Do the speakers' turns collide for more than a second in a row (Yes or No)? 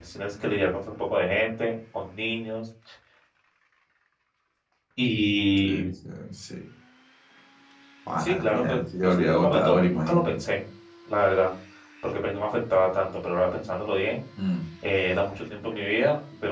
Yes